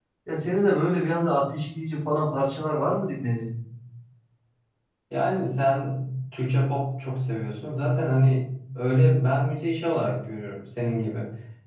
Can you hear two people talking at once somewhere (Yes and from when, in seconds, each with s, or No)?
No